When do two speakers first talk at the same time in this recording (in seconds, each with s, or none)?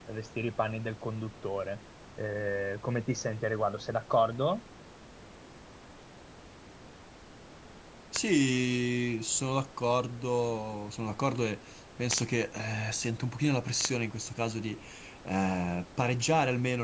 none